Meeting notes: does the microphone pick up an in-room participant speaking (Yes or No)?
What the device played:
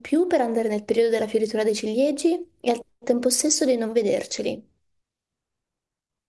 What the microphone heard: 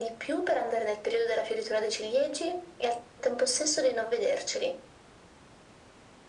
No